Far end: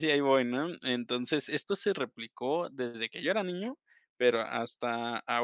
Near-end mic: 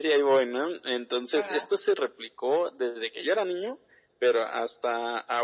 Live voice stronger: No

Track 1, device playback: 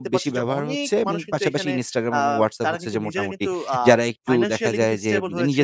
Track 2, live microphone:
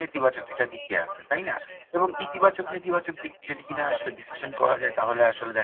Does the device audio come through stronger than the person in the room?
No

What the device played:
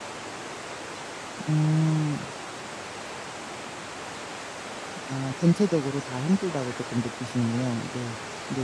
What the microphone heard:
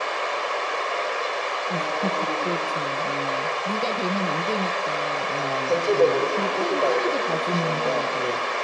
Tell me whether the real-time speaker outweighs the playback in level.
No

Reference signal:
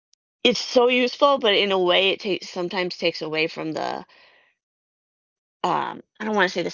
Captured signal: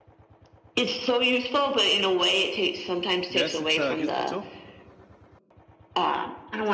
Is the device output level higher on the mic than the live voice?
Yes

